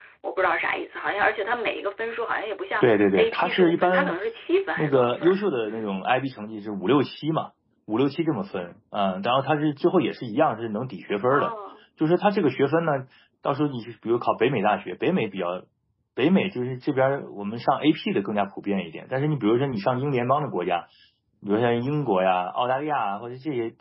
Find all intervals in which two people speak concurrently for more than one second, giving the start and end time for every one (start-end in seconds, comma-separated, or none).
2.8-4.2, 4.8-6.1